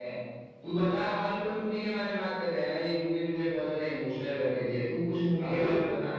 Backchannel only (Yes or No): No